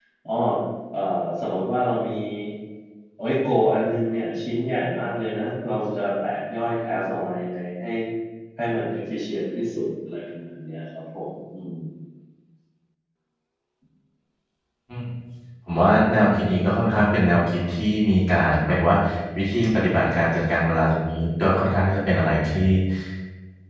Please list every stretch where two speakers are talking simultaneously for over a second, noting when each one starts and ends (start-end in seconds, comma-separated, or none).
none